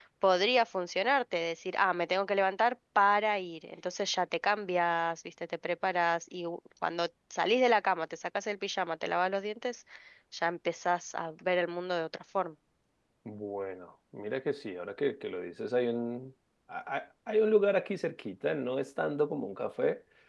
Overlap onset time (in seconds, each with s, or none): none